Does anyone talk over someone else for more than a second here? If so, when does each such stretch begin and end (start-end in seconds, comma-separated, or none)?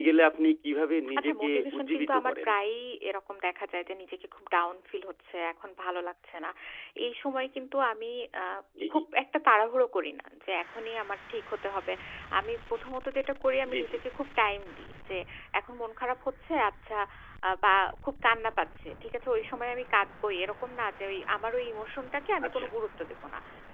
1.2-2.5